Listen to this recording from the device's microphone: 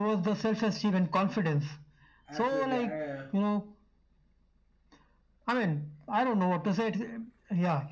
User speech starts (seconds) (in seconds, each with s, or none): 2.2 s